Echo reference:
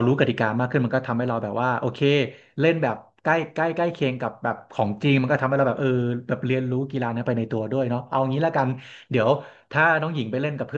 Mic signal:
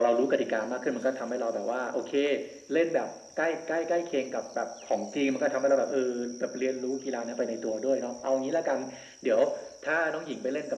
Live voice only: none

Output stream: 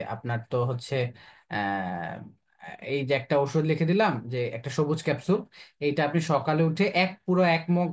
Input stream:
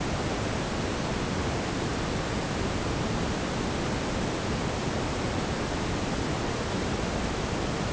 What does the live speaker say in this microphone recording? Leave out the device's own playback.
none

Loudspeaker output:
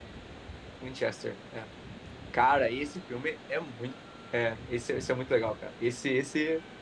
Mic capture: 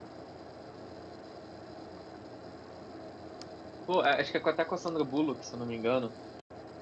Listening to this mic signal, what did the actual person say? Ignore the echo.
Pô, é- acho que é com- até com a Sandra Bullock, se eu não me engano.

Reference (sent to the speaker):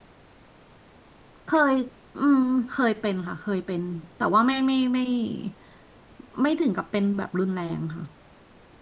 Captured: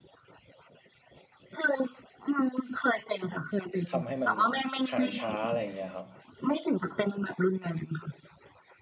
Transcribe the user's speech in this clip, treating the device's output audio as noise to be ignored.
ทำให้มันหายช้าอะไรอย่างเงี้ยครับ

